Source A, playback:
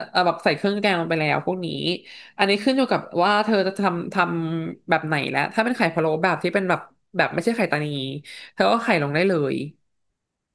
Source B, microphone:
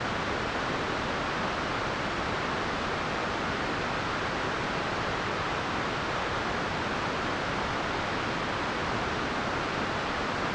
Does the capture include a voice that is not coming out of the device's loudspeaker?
No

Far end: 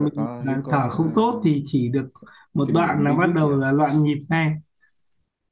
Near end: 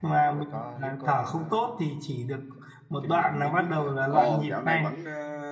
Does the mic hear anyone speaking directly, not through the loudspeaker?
Yes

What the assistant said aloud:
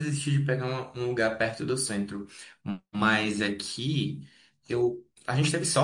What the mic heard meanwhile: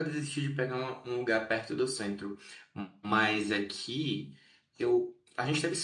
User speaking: No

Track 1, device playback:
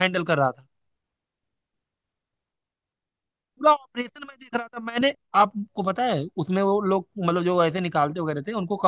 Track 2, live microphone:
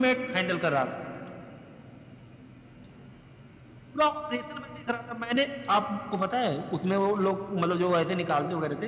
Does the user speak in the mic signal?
No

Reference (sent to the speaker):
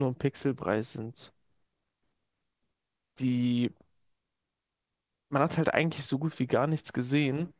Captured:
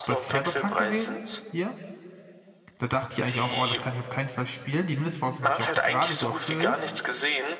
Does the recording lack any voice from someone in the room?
No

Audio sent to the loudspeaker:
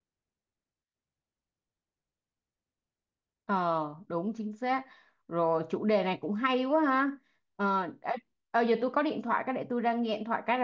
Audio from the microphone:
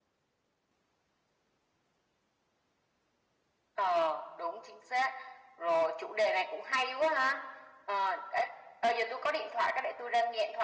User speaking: No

